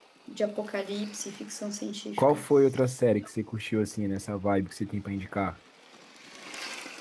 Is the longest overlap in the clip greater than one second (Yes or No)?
No